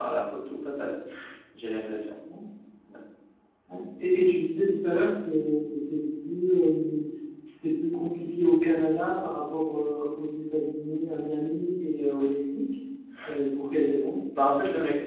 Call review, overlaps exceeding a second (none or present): none